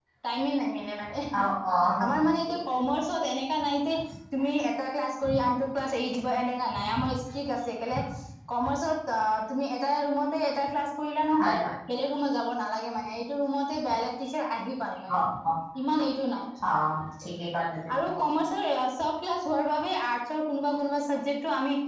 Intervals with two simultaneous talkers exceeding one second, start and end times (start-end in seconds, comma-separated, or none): none